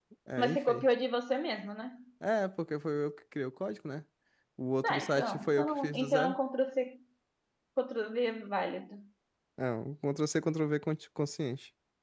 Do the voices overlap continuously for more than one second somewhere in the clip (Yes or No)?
Yes